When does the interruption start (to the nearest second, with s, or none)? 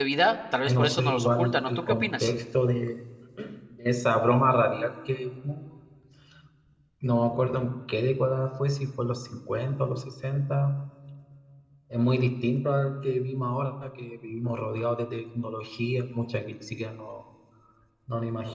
1 s